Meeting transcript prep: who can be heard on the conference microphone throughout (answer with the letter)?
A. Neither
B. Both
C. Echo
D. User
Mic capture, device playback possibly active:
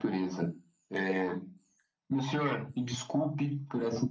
C